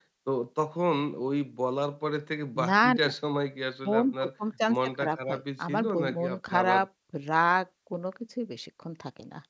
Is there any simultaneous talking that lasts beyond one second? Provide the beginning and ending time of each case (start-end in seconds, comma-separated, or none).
4.8-6.8